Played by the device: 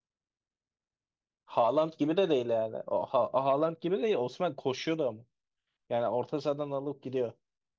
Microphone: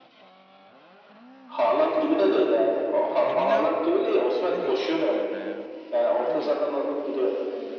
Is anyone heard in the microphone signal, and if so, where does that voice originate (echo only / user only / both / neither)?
both